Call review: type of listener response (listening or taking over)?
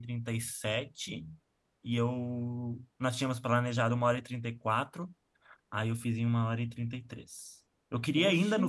listening